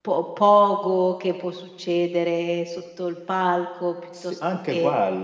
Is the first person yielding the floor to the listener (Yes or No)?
Yes